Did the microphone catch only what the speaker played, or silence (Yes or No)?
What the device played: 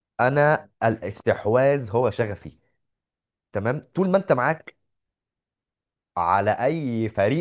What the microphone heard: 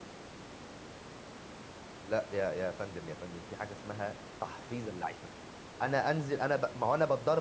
No